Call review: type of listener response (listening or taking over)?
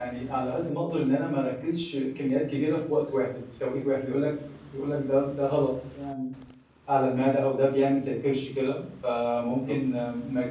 listening